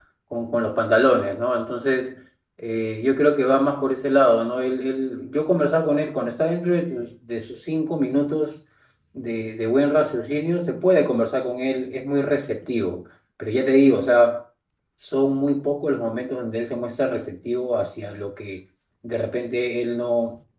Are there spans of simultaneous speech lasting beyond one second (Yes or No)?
No